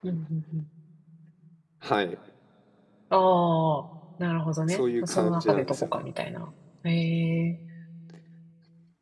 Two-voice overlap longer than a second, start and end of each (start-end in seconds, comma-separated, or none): 4.7-6.0